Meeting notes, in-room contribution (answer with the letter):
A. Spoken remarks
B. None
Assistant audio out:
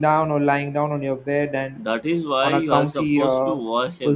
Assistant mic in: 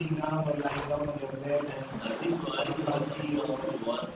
B